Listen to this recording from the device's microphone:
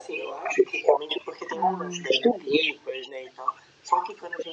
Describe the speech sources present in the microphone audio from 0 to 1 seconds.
echo only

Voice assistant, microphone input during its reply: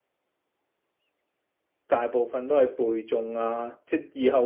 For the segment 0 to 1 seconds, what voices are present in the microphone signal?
neither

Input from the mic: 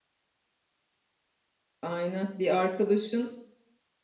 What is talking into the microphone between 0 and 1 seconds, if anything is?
neither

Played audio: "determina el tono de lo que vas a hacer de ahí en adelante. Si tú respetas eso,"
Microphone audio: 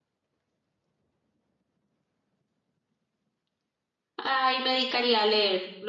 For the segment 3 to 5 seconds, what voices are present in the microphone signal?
user only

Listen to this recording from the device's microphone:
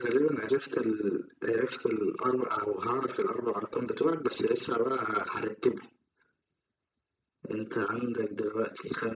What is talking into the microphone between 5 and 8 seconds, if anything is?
echo only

